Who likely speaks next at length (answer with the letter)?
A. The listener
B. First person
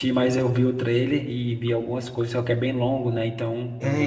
A